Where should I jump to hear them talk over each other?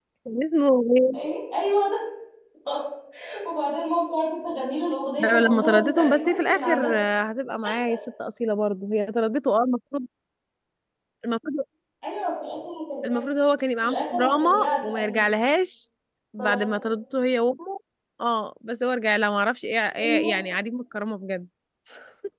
5.2 s

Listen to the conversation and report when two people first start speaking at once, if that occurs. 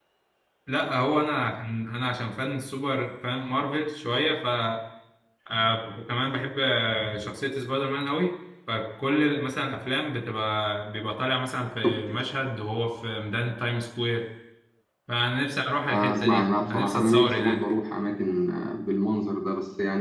15.9 s

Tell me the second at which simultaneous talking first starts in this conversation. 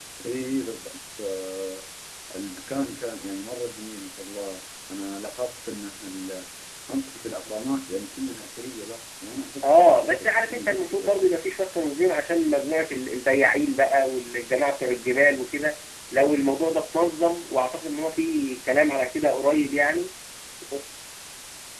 9.6 s

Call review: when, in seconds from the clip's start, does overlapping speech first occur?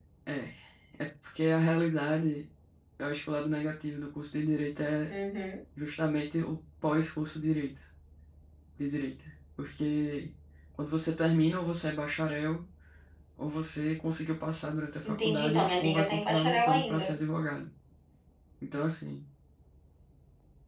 15.0 s

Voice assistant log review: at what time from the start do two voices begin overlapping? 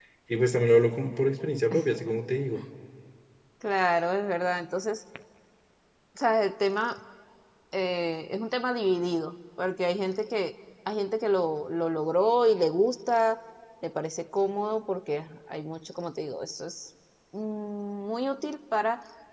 none

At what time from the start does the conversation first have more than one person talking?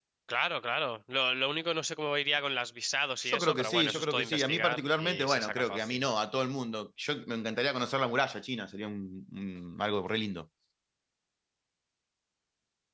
3.2 s

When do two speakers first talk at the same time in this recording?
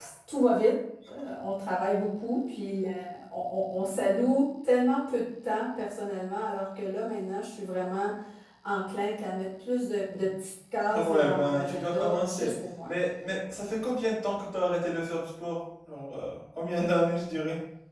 10.9 s

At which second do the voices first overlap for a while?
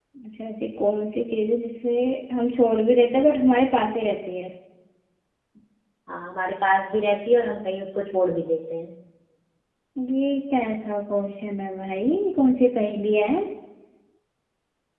none

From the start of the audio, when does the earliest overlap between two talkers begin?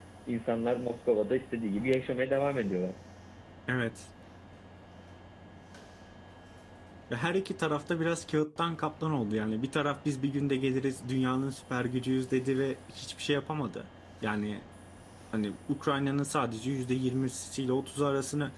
none

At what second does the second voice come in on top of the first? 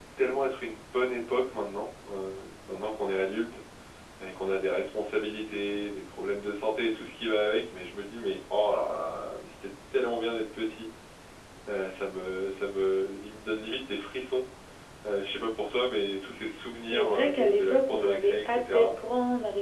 16.8 s

